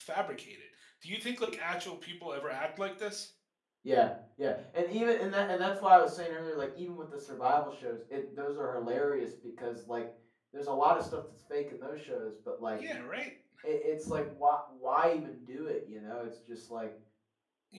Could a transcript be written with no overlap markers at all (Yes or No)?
Yes